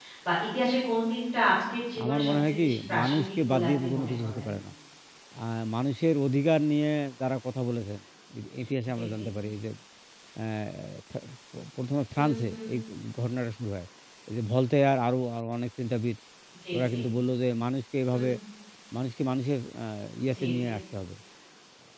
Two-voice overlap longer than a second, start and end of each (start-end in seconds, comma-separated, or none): 2.0-4.5